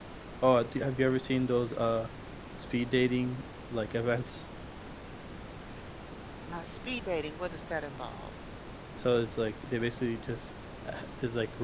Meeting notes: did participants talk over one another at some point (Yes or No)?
No